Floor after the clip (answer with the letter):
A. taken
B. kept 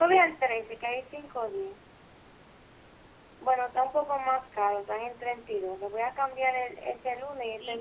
A